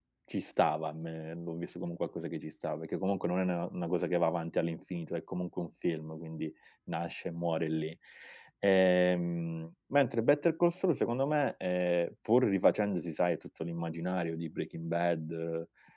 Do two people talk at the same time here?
No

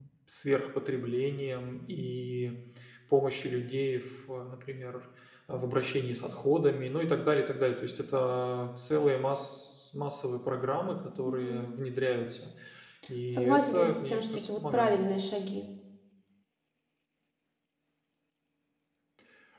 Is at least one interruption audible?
Yes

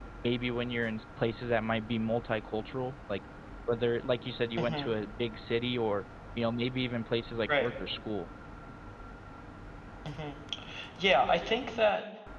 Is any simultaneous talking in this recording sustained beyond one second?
No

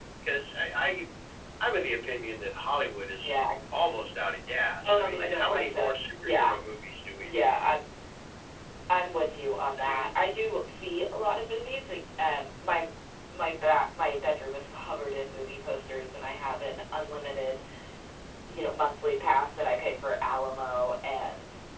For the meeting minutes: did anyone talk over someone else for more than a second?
Yes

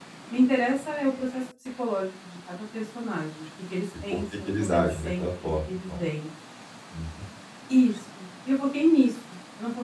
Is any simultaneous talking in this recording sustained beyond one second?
Yes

